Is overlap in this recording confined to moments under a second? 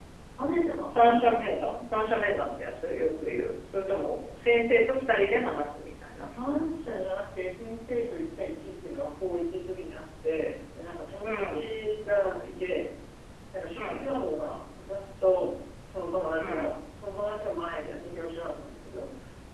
Yes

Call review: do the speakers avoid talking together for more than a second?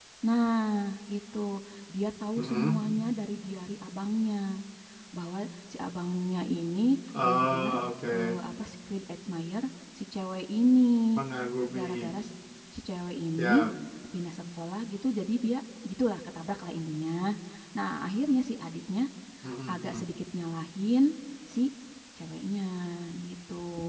Yes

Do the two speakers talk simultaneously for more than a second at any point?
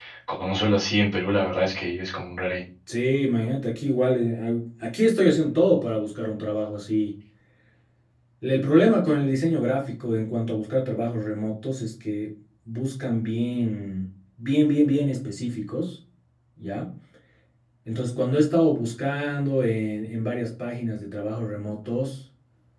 No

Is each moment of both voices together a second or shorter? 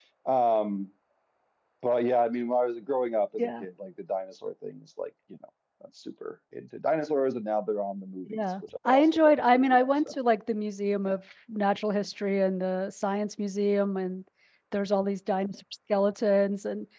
No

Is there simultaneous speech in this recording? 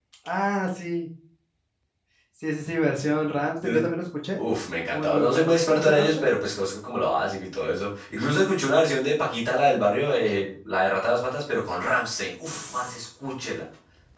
Yes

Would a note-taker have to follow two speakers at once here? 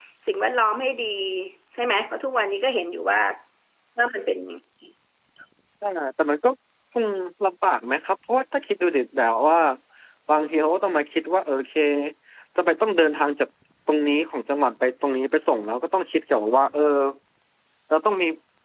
No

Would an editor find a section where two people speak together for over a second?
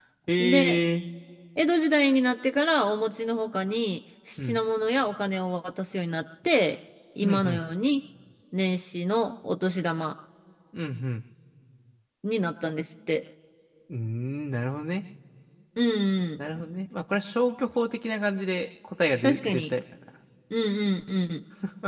No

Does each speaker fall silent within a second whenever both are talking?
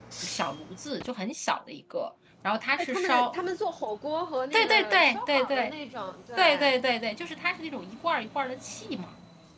No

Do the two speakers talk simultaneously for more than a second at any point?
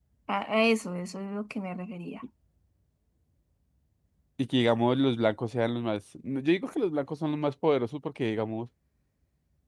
No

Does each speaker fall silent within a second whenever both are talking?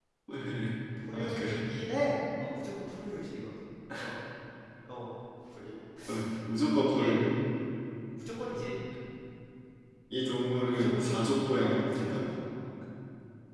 No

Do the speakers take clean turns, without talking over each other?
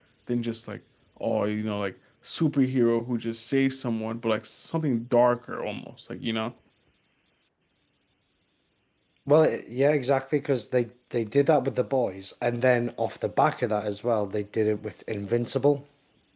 Yes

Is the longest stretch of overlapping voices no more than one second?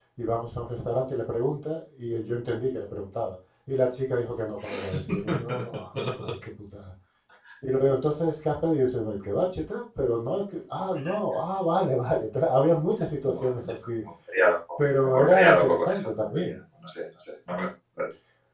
No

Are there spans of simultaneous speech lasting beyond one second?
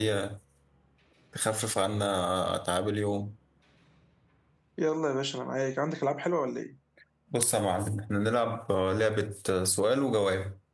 No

